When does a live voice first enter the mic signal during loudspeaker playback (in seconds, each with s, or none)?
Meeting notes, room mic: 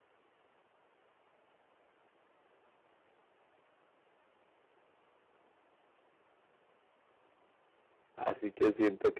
8.2 s